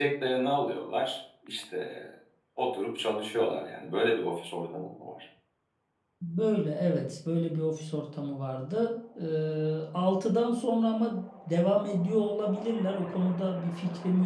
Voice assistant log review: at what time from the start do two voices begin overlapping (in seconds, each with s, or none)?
none